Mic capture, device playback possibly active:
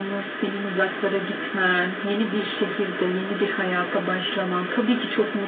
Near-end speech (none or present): none